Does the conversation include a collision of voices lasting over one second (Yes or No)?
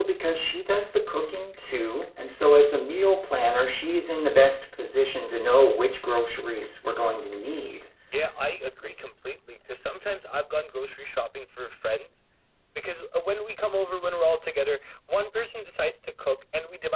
No